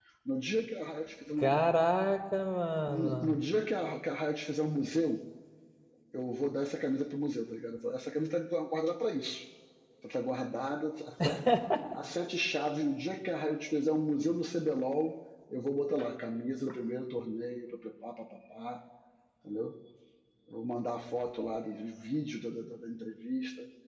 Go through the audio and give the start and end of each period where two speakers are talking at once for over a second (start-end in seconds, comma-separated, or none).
none